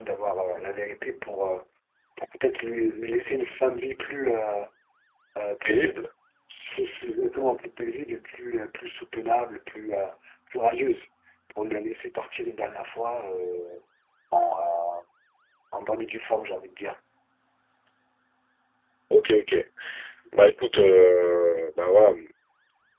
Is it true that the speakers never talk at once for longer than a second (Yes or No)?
Yes